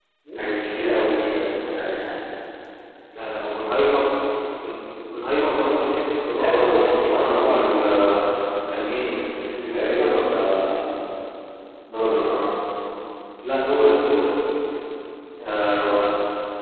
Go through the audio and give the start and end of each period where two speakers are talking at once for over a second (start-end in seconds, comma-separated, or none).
6.4-7.8